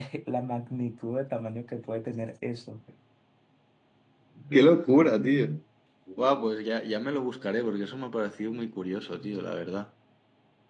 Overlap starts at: none

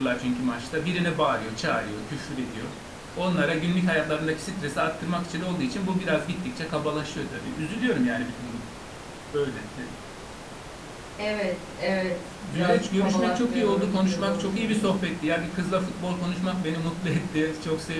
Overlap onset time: 12.4 s

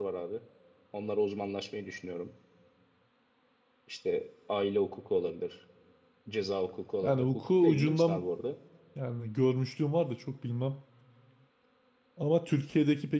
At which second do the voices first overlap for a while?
7.0 s

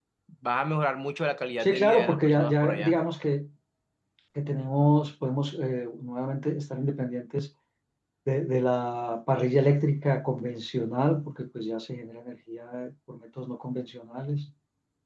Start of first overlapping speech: 1.6 s

